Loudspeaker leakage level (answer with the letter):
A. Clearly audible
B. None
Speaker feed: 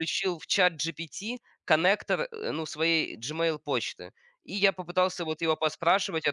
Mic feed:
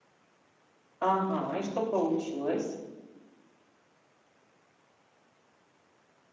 B